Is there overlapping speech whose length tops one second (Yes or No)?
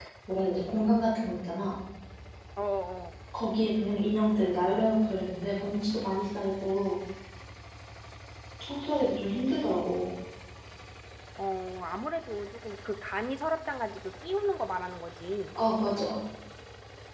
No